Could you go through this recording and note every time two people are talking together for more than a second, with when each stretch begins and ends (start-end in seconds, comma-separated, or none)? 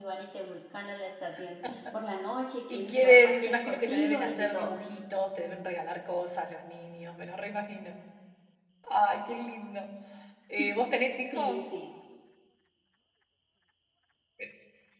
2.7-4.7